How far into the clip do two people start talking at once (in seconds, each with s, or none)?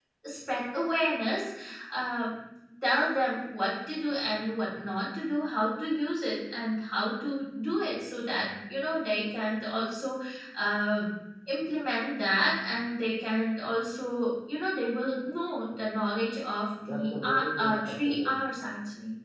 16.8 s